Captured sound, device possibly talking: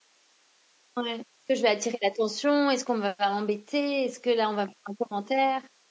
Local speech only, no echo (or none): Ouais. Est-ce que je vais attirer l'attention? Est-ce qu'on va m'embêter? Est-ce que là, on va me faire un commentaire?